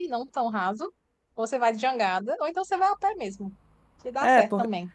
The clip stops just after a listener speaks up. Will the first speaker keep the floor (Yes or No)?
No